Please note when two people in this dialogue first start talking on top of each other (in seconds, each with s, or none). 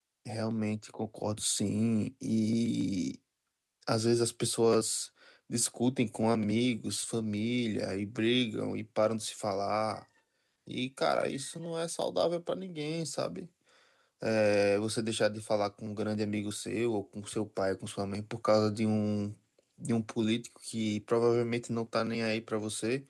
none